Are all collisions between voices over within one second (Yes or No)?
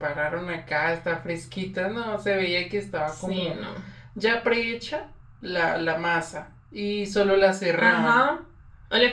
Yes